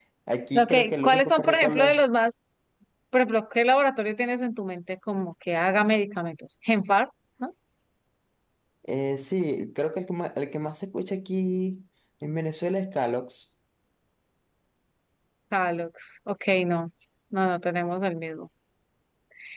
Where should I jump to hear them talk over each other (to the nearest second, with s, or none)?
1 s